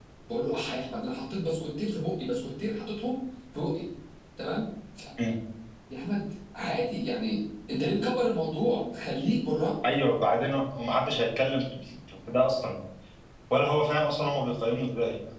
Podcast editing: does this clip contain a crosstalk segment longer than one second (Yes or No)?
No